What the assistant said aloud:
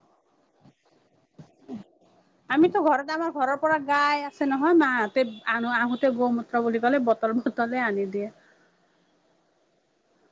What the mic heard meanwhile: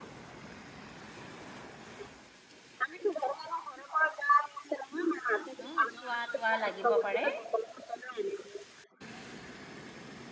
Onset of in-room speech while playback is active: 5.6 s

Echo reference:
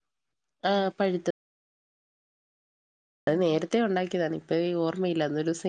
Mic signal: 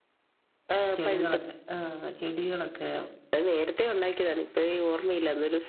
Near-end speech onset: 0.9 s

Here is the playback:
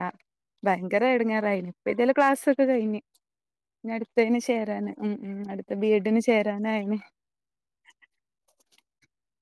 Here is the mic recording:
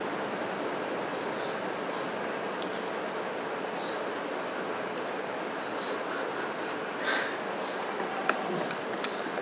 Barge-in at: none

